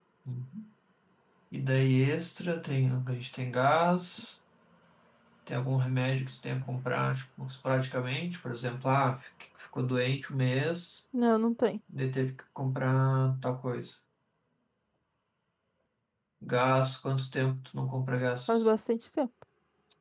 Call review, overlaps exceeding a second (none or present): none